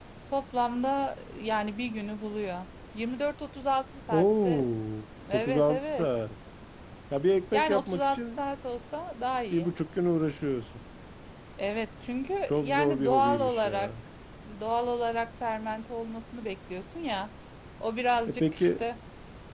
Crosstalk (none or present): present